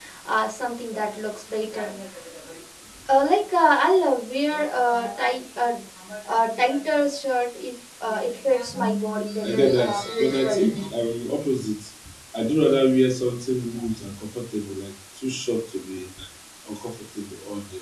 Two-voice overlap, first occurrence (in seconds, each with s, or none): 9.4 s